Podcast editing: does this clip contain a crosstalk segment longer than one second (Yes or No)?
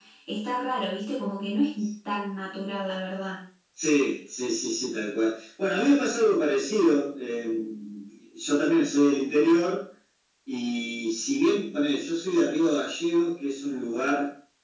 No